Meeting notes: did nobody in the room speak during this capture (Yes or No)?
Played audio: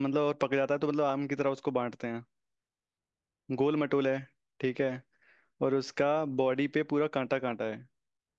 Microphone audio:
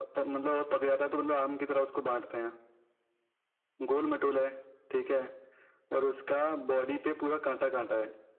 Yes